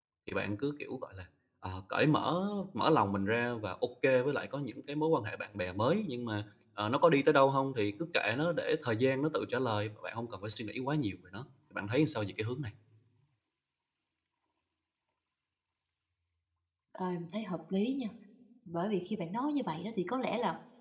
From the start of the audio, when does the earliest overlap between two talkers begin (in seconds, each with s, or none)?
none